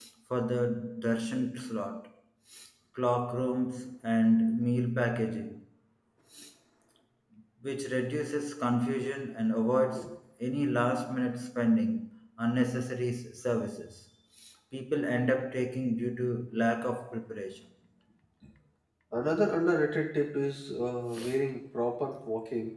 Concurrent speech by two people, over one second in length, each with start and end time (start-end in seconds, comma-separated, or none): none